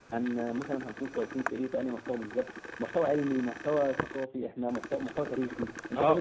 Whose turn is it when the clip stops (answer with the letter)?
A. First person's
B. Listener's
B